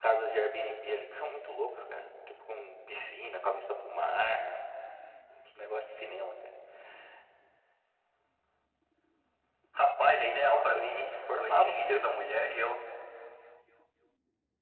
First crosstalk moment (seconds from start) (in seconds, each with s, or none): 10.4 s